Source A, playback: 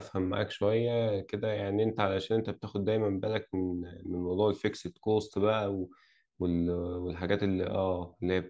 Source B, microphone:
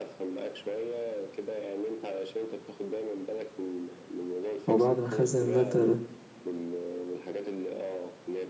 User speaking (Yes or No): Yes